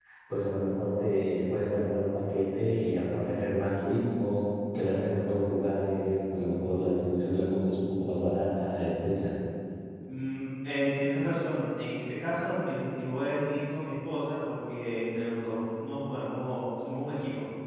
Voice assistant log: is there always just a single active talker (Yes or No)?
Yes